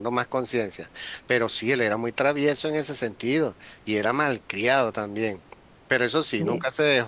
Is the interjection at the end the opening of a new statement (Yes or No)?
No